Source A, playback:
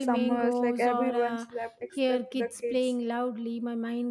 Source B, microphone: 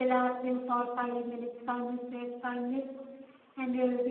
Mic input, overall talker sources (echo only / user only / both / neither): user only